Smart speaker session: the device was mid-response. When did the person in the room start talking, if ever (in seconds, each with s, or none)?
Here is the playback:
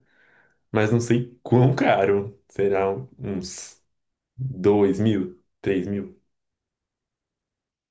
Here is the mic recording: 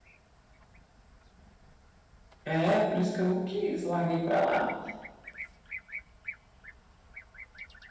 2.4 s